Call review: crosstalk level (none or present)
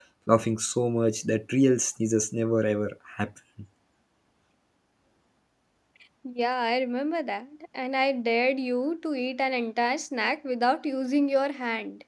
none